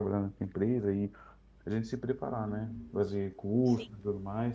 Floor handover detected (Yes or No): No